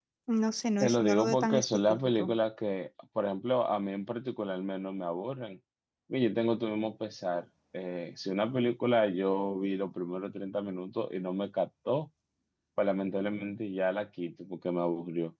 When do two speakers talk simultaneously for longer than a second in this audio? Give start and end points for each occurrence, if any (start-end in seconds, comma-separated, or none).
0.8-2.4